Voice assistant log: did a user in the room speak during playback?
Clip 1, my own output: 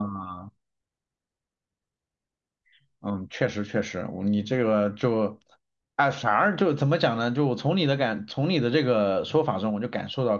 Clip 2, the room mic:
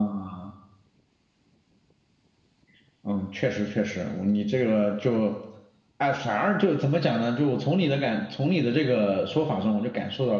No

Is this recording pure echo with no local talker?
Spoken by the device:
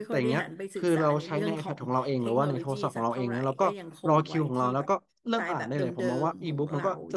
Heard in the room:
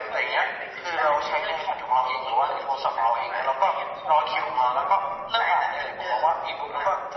Yes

